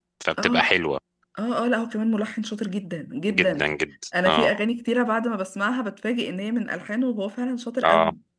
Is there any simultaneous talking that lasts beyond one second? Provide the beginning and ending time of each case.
none

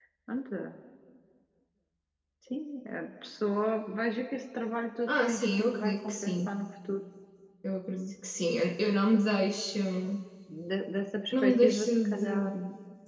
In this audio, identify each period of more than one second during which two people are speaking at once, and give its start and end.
5.1-6.5, 11.3-12.5

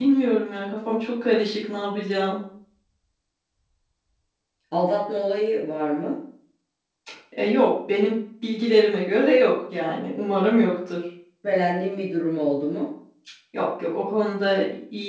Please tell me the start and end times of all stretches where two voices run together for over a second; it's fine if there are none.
none

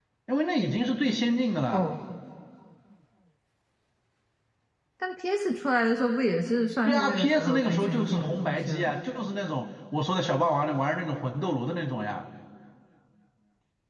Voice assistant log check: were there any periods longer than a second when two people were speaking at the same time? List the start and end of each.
6.8-8.9

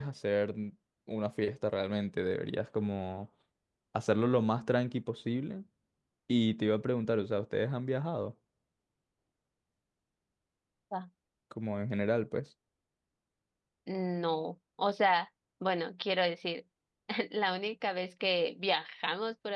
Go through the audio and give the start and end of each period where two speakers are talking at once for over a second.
none

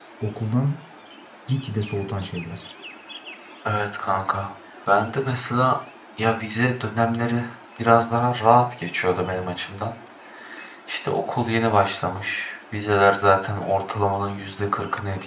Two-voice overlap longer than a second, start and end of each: none

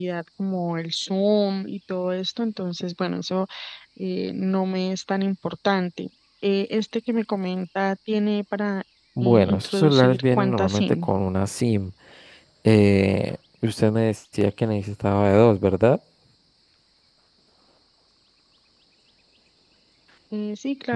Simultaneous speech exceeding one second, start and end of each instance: 9.2-11.1

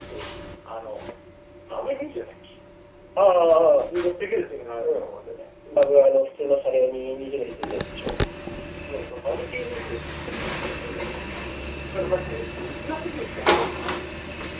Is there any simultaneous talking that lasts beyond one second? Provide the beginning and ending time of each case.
none

